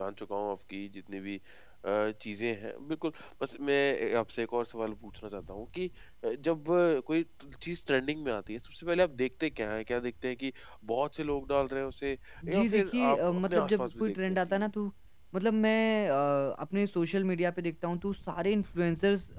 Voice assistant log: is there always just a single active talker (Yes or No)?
No